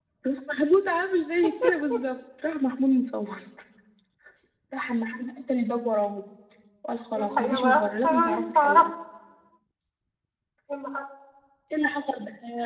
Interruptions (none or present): present